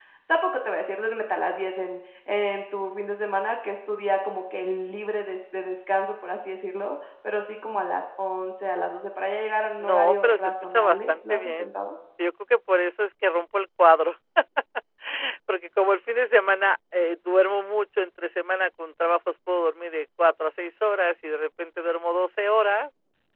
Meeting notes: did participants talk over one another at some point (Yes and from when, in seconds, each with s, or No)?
Yes, from 9.8 s